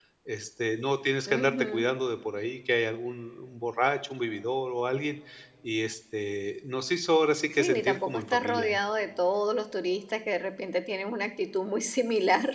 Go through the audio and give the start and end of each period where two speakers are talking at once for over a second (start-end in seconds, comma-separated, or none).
7.5-8.8